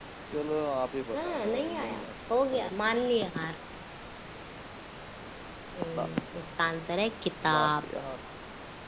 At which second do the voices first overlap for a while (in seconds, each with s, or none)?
1.2 s